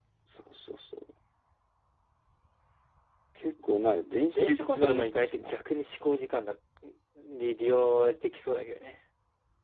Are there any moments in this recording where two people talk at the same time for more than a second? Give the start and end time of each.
4.3-5.7

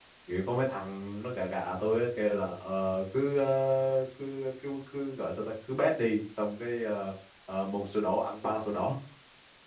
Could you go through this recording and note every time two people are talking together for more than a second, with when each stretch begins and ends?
none

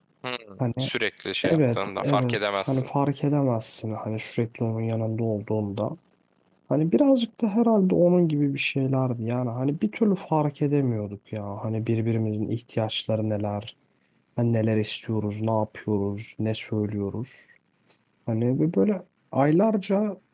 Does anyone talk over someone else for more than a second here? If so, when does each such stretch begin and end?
1.4-2.9

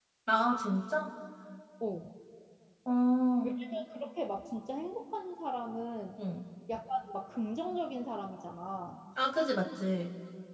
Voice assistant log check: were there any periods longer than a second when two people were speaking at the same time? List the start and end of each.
none

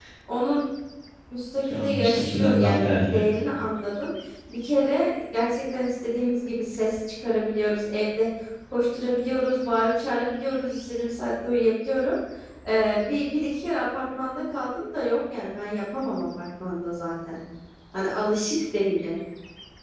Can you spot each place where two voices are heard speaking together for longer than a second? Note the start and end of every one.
1.7-3.2

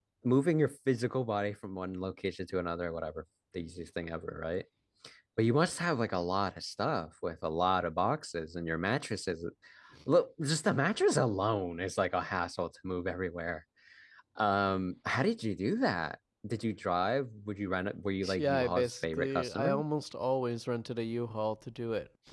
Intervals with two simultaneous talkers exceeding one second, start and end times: 18.4-19.8

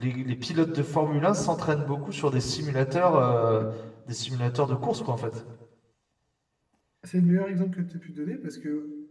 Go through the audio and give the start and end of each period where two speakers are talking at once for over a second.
none

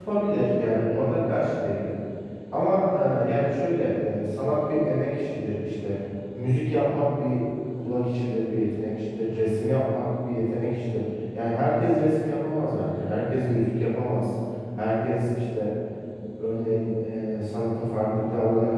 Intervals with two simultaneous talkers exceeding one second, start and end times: none

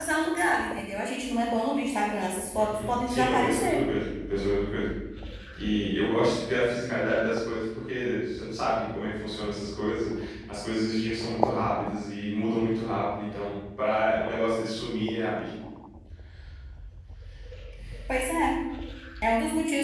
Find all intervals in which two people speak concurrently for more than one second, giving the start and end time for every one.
2.6-3.8

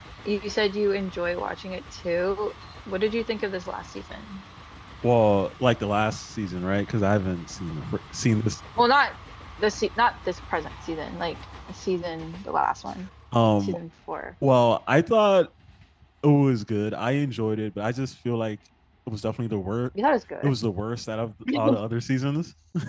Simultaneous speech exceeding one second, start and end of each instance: none

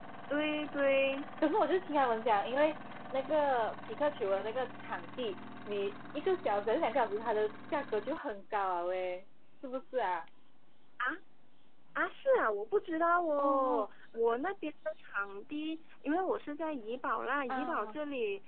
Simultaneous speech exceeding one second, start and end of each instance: none

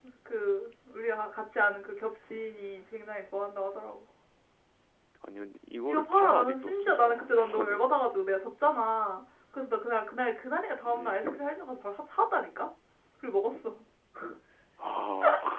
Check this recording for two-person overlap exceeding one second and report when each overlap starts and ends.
5.9-7.8

